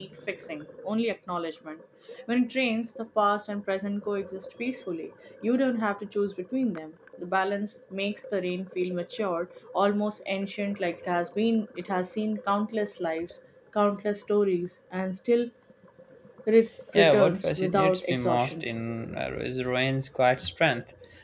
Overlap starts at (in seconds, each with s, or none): 16.9 s